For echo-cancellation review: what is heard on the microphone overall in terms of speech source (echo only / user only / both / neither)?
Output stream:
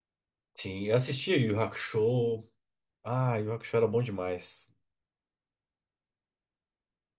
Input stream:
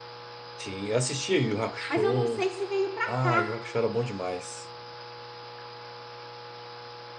both